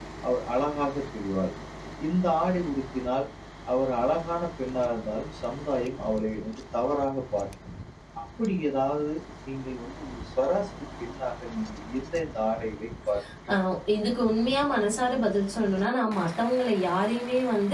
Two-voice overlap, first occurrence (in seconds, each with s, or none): none